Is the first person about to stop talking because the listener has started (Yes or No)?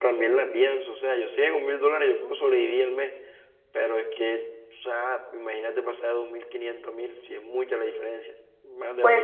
Yes